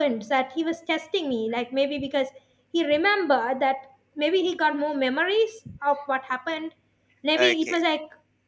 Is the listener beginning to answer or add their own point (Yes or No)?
No